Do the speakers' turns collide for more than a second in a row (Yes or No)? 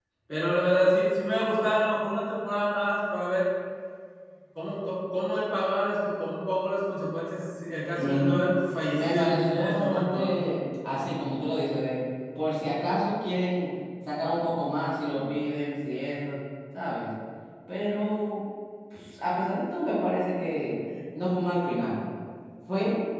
Yes